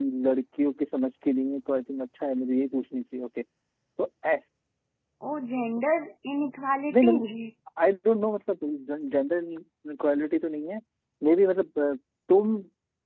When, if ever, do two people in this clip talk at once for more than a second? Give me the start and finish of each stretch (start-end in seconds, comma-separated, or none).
none